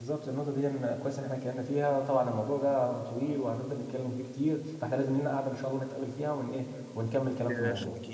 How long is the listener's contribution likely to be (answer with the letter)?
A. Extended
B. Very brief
A